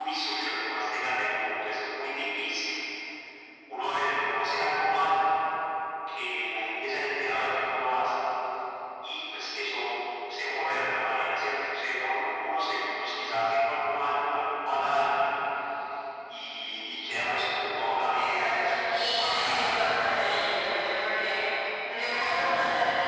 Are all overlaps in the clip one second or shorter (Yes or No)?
No